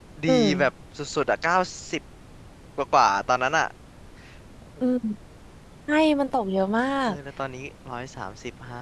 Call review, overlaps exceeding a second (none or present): none